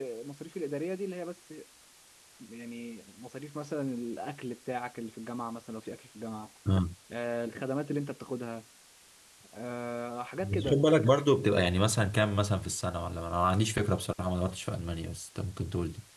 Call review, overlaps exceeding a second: none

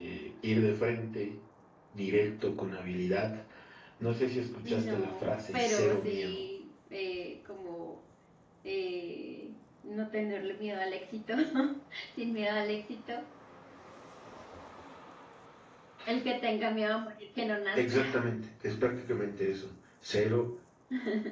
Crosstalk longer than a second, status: present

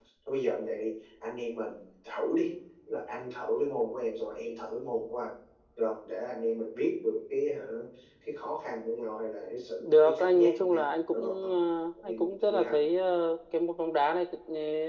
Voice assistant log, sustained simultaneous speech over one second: present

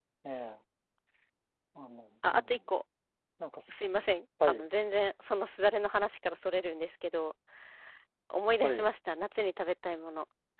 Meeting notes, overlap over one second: none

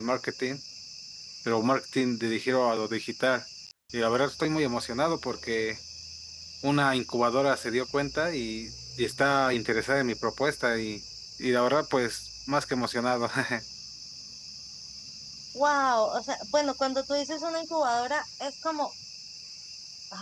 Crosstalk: none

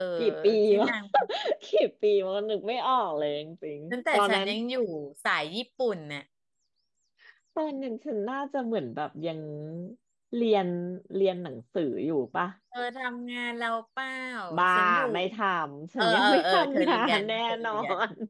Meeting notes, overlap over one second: present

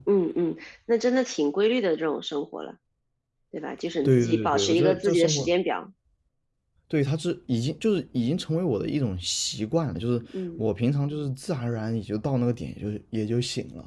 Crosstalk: present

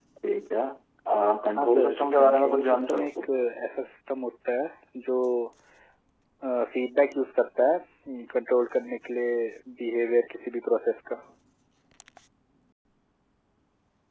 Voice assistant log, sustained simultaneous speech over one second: present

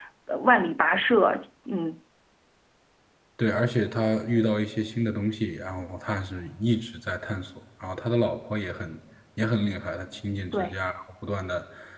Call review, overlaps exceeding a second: none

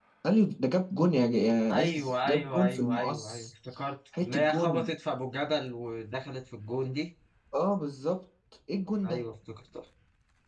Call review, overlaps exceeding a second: present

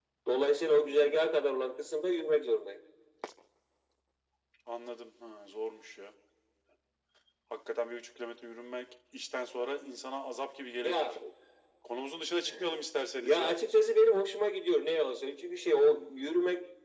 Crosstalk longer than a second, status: none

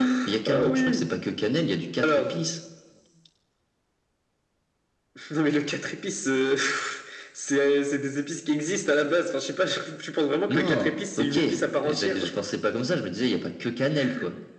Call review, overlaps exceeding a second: present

